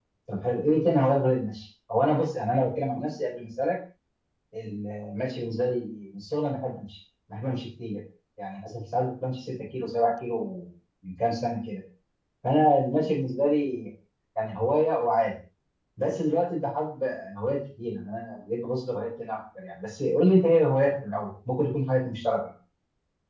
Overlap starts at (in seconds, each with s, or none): none